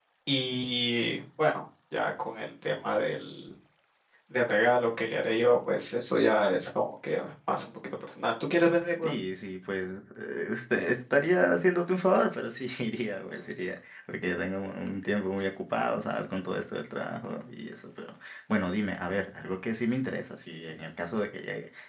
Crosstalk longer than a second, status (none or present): none